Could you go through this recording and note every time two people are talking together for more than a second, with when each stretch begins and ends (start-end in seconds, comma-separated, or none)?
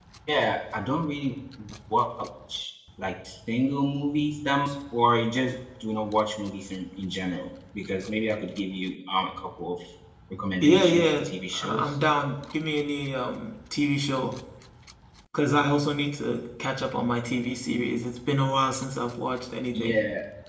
10.6-11.9